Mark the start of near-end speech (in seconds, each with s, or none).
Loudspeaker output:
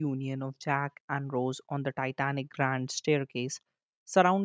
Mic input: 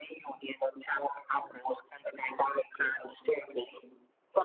none